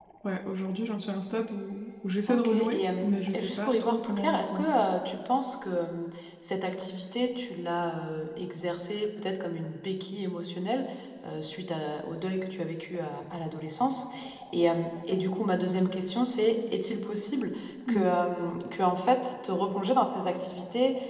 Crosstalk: present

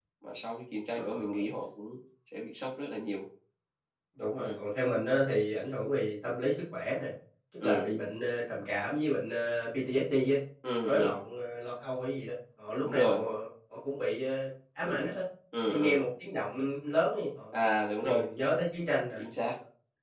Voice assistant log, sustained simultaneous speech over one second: none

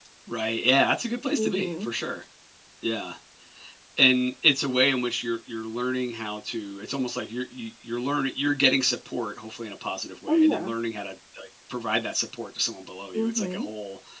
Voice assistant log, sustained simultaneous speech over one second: none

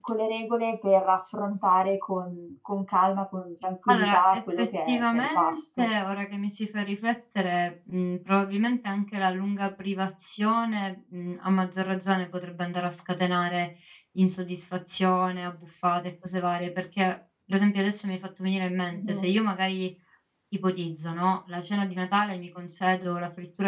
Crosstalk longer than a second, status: present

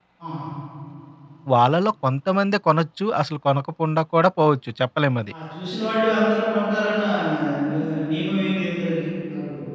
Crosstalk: none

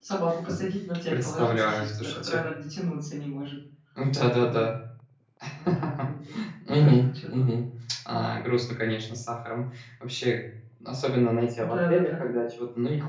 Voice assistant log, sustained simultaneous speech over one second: present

